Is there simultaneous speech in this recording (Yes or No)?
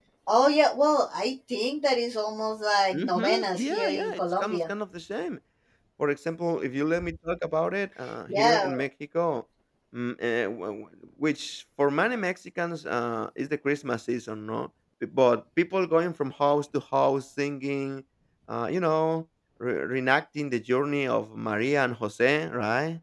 Yes